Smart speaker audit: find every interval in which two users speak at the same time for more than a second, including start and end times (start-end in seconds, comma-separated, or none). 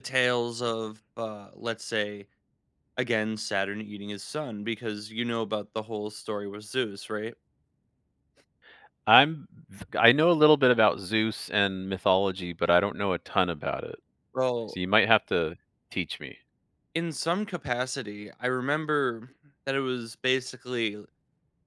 none